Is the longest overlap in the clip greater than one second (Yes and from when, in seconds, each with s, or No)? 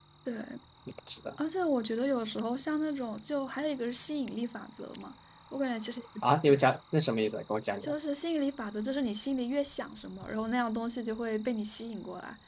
No